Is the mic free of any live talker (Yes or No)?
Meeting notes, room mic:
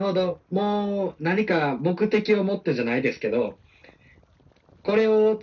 Yes